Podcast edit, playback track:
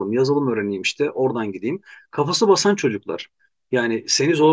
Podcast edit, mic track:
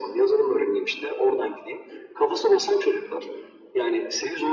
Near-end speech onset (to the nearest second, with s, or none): none